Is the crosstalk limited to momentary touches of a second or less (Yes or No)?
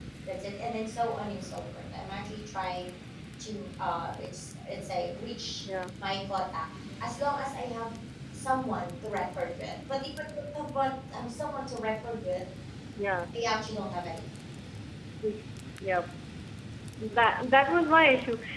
Yes